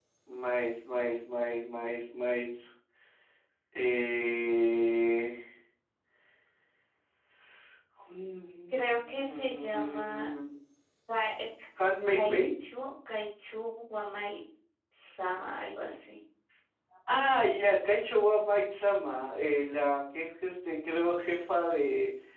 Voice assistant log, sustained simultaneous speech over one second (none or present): present